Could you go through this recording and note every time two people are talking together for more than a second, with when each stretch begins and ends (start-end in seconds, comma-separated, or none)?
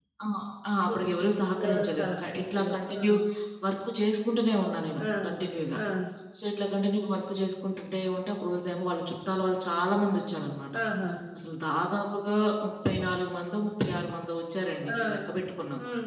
1.6-3.0